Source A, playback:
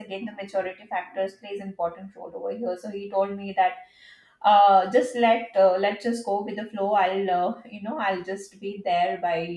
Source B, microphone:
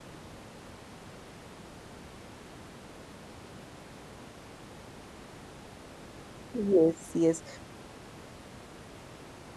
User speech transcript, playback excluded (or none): Yes, yes.